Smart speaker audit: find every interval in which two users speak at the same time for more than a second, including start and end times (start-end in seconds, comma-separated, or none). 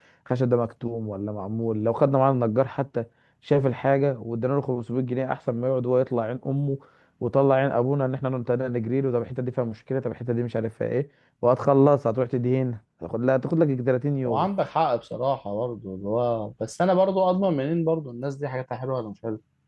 none